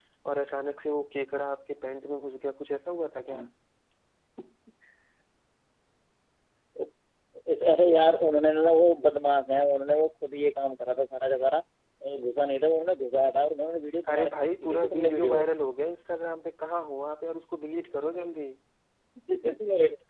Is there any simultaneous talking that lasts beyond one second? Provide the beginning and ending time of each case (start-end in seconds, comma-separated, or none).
14.1-15.4